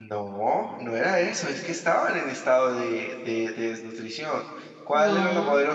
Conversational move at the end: listening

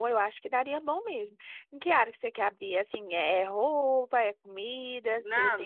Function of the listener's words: taking over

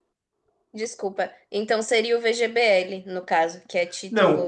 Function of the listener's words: taking over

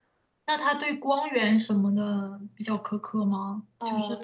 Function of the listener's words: taking over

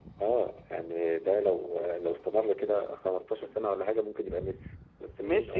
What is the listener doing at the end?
taking over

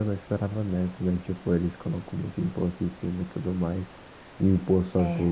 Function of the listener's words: listening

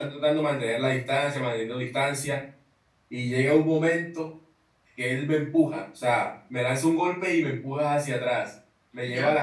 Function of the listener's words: listening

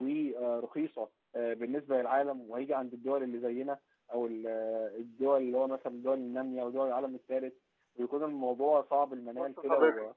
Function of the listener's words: taking over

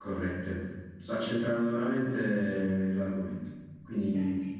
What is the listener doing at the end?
listening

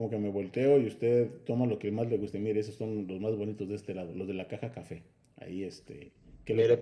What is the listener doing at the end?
taking over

